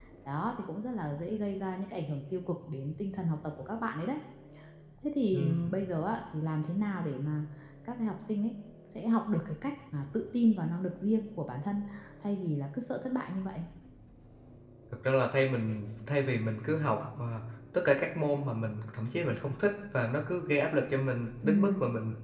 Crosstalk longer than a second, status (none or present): none